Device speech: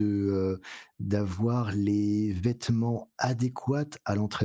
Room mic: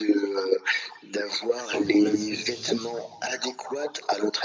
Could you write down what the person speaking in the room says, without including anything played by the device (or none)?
sans problème spécifique